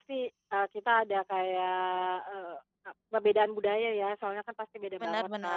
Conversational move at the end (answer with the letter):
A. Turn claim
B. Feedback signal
B